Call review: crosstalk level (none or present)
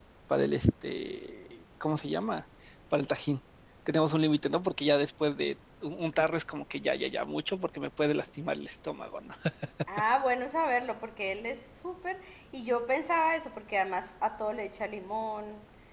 none